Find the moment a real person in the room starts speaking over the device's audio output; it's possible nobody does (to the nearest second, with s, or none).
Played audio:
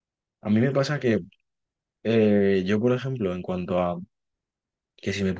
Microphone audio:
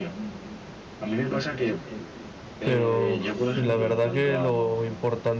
3 s